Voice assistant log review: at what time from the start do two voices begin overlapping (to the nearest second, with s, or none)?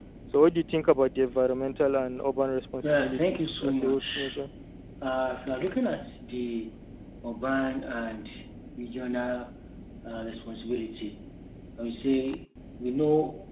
3 s